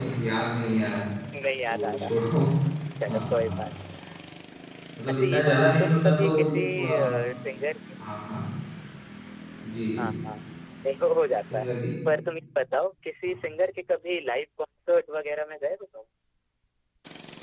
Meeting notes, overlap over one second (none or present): present